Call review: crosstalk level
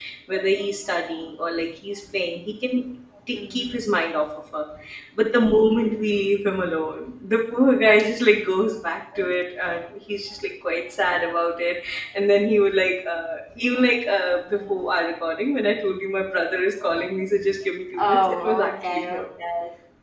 present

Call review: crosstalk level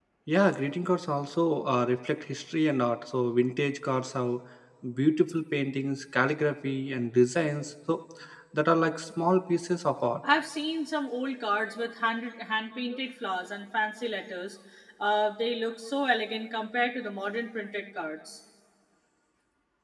none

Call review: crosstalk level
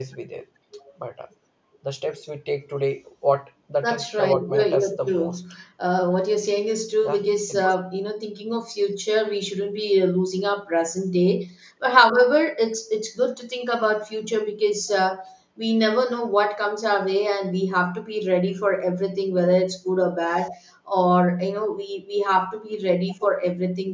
present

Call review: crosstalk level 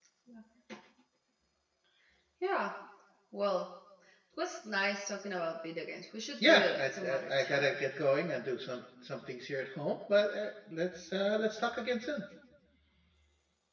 present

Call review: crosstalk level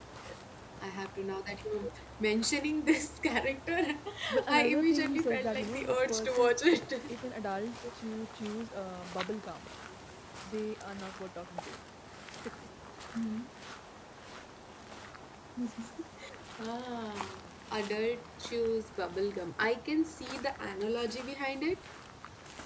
present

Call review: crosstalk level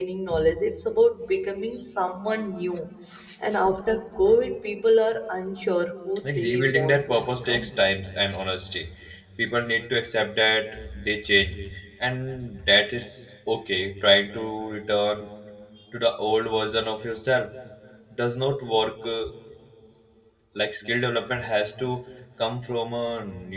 present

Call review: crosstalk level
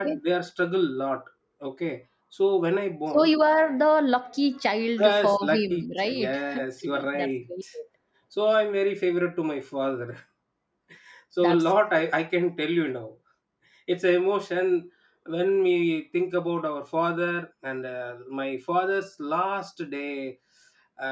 present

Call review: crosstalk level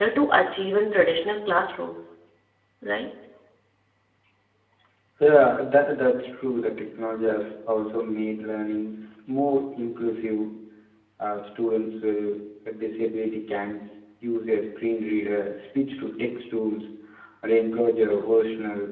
none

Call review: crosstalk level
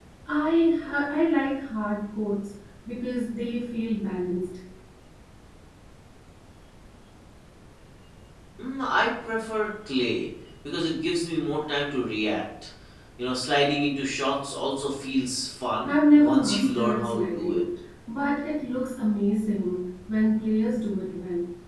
present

